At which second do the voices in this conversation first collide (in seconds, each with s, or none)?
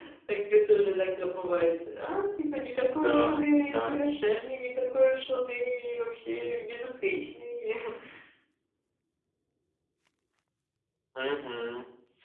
2.9 s